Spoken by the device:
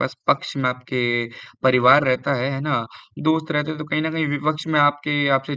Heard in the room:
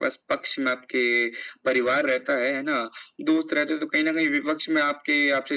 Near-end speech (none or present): none